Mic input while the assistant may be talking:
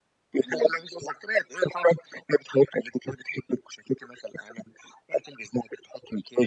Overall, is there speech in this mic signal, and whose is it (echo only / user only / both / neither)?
both